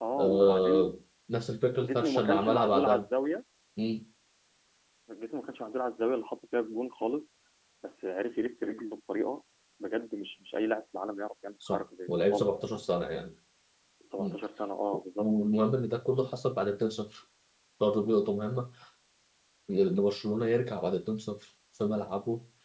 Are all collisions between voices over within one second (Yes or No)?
No